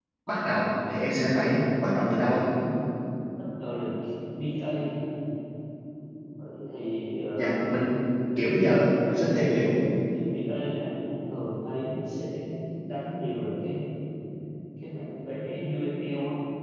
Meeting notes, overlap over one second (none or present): none